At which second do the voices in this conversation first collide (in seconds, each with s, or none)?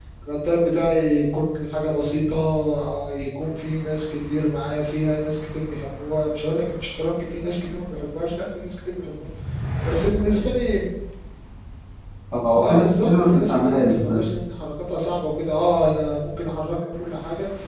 12.6 s